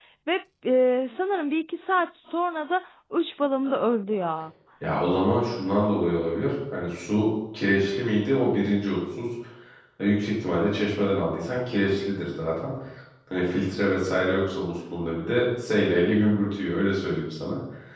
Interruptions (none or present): none